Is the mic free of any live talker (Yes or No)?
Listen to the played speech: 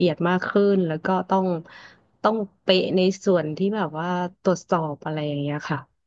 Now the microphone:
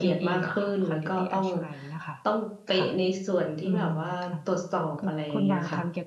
No